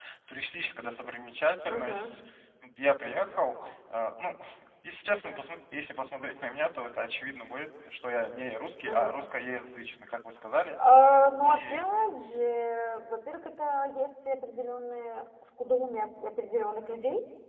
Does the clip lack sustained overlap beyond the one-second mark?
Yes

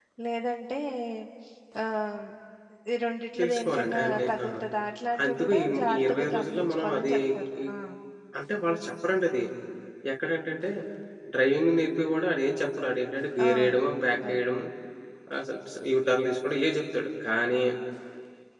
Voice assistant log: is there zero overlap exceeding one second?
No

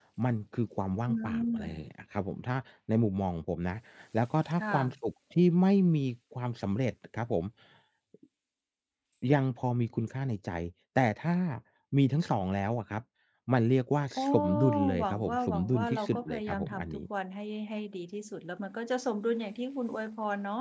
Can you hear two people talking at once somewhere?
Yes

